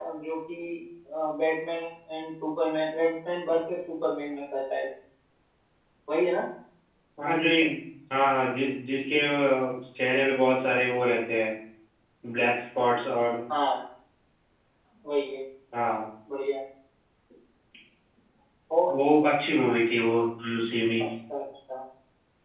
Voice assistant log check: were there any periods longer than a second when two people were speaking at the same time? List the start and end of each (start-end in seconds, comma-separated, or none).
none